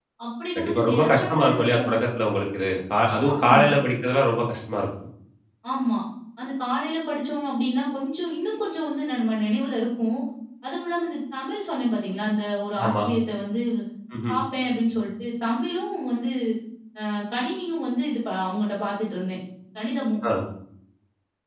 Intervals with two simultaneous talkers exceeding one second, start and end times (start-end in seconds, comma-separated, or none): 0.6-1.8